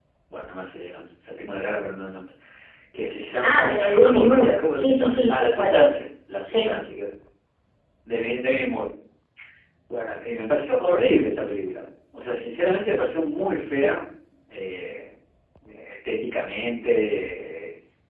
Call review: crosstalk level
present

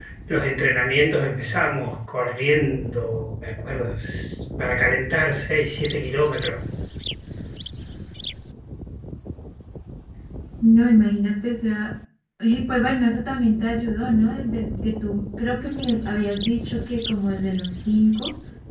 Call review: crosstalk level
none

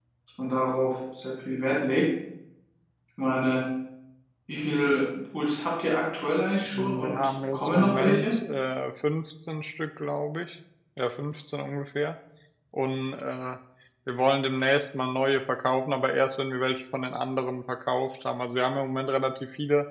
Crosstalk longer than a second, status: present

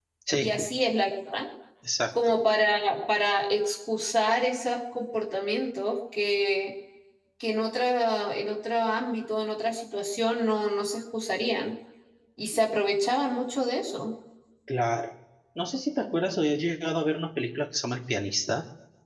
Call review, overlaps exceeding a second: none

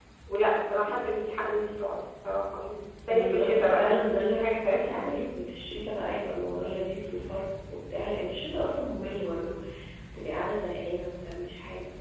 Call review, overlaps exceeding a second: present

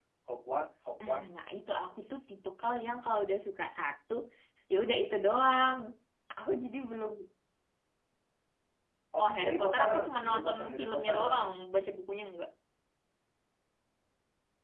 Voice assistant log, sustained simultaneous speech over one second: present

